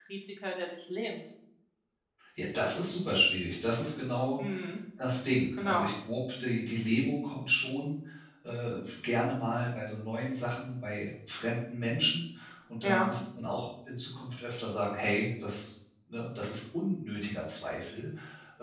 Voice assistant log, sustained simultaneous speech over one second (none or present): none